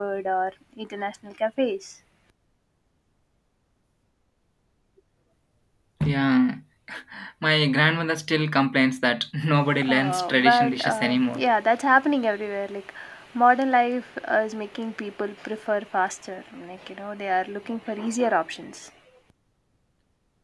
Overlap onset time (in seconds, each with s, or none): 9.8 s